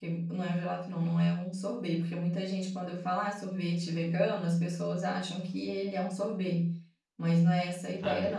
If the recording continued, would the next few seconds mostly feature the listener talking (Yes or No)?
Yes